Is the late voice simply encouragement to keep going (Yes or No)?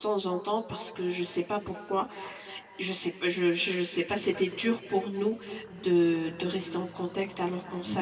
No